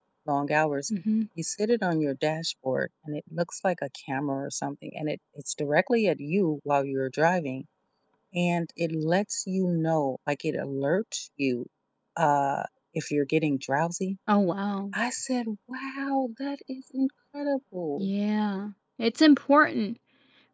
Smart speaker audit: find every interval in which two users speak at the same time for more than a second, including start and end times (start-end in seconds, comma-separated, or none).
none